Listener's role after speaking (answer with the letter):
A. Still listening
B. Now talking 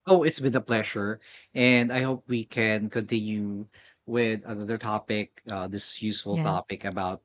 A